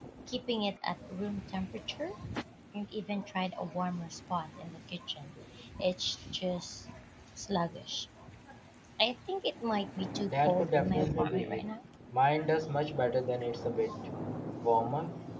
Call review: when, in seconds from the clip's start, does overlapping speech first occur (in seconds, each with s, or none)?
10.3 s